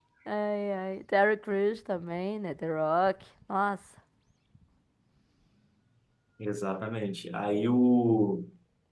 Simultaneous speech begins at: none

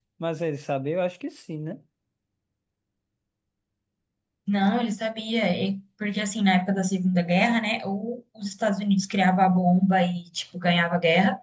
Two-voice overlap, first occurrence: none

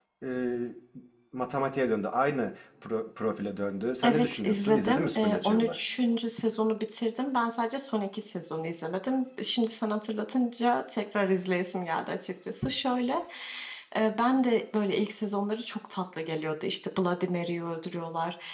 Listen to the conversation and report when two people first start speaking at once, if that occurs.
4 s

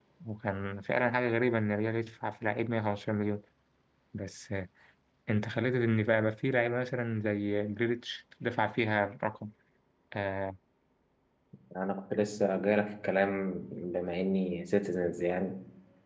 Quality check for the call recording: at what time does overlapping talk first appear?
none

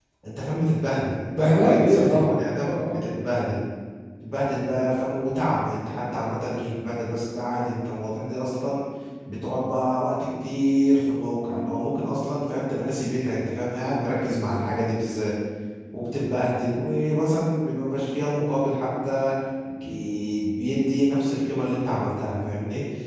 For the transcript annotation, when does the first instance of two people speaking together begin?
1 s

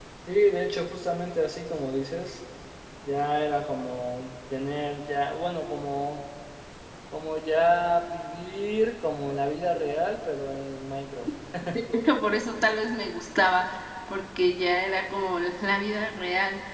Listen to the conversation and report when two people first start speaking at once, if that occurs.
none

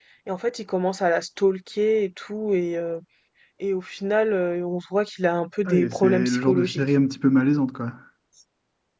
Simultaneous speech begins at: 6 s

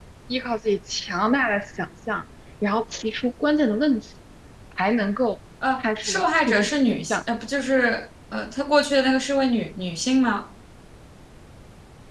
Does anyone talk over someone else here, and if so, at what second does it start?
6 s

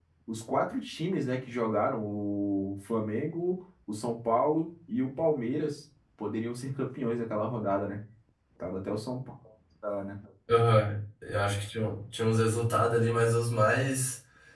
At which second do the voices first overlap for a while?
none

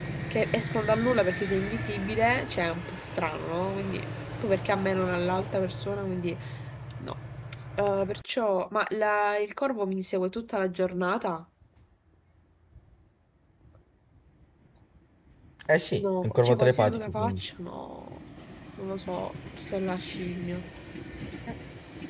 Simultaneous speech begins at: 16 s

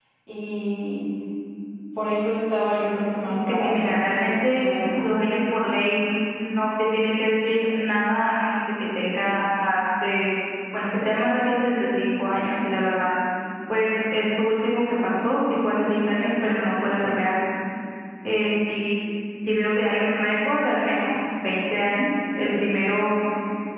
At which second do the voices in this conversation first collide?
3 s

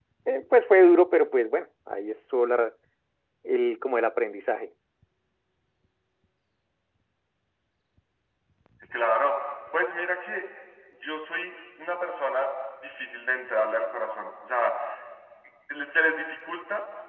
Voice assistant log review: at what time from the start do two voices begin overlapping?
none

